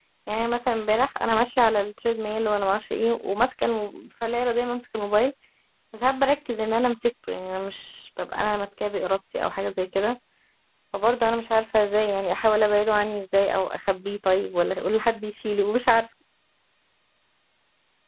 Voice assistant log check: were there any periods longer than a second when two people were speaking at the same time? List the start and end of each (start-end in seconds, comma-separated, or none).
none